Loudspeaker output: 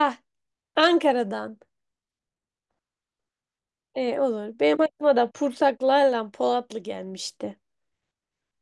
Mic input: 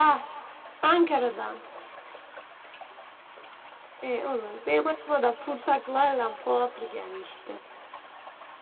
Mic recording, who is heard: echo only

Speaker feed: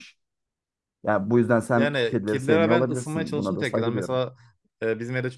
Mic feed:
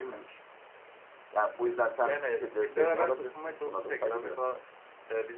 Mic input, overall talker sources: echo only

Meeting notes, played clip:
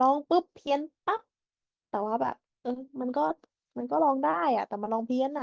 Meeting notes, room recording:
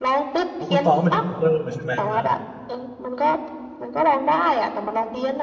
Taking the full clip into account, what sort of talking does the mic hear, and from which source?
both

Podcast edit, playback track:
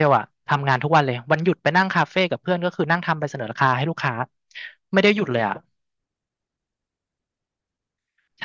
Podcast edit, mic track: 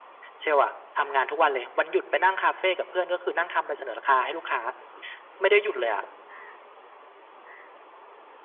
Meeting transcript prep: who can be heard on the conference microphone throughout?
echo only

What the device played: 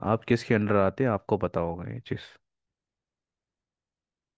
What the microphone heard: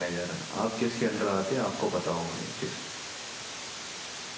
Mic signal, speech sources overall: echo only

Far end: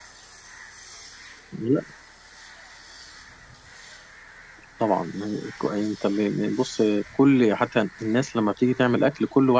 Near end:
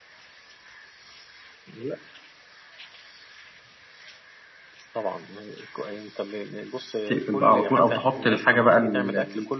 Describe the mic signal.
both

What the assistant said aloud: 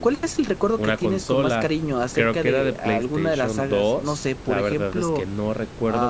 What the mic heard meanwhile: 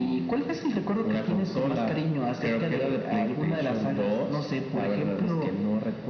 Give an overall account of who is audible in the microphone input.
echo only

